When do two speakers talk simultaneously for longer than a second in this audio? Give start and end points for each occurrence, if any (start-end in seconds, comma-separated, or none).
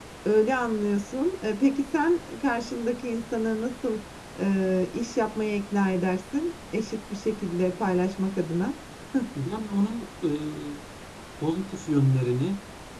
none